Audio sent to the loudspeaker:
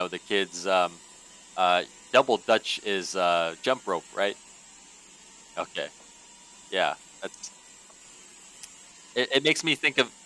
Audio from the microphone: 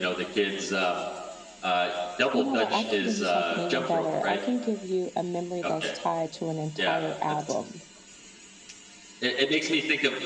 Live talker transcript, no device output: You know what? I can do you something even better. I can give you a memory that's tied to an entire album.

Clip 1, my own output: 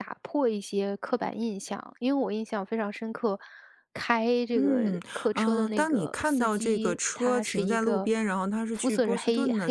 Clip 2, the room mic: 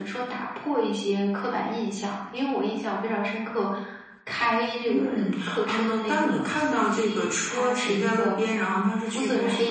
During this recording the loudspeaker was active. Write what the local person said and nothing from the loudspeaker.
none

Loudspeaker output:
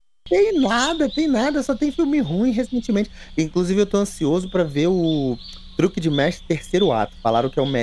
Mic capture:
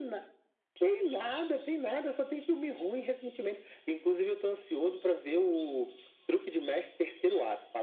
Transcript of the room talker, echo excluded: none

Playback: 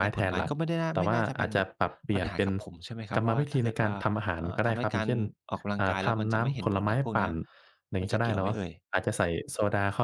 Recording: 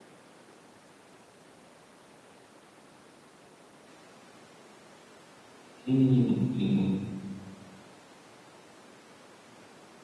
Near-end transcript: อืมอือๆ

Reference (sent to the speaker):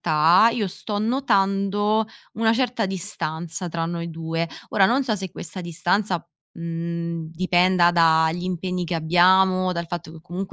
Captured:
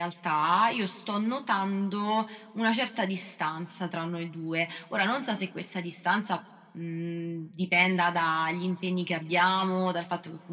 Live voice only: none

